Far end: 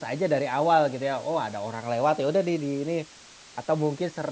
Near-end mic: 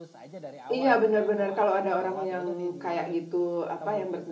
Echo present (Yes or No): Yes